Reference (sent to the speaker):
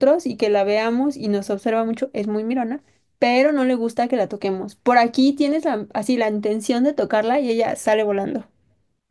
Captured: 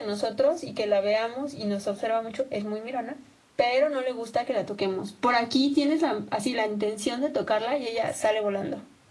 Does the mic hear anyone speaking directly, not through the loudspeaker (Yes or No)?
No